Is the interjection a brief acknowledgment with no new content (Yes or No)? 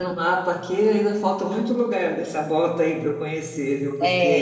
Yes